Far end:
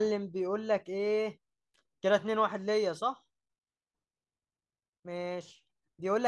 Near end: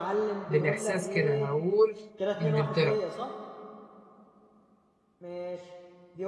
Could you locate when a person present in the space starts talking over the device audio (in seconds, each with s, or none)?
0.5 s